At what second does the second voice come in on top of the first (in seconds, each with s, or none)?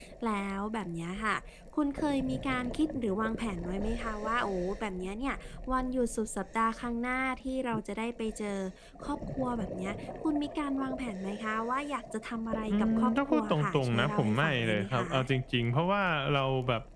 12.7 s